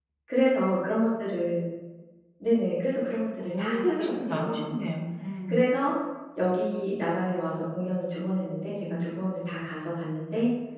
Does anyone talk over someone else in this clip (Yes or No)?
Yes